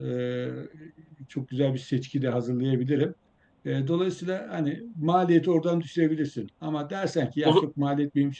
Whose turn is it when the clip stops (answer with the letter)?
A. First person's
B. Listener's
A